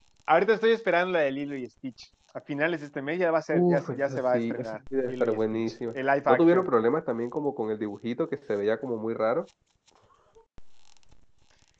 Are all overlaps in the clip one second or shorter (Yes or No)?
No